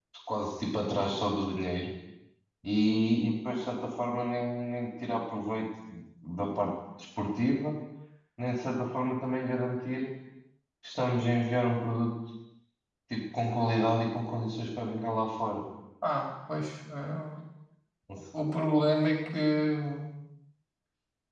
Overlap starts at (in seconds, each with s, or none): none